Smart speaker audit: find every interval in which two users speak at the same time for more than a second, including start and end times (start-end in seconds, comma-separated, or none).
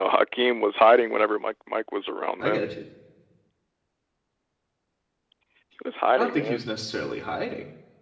none